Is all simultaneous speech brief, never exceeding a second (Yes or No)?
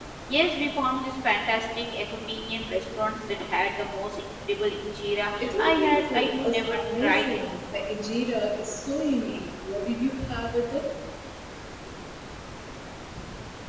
No